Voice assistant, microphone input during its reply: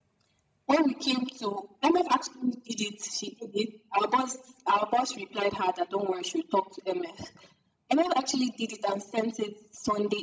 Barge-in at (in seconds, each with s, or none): none